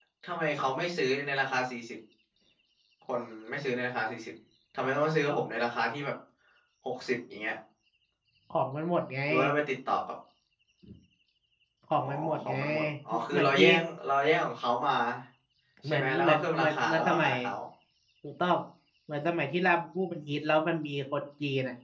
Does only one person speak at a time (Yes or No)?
No